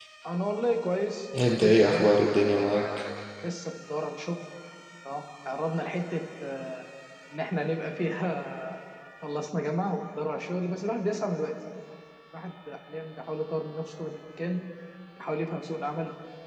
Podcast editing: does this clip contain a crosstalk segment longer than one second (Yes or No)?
Yes